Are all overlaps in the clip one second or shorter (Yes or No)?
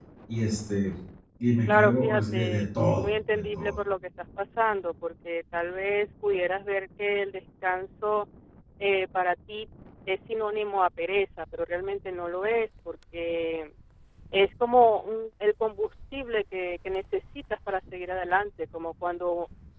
No